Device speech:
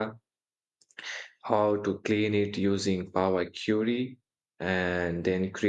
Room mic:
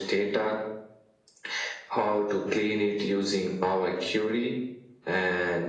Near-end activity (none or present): none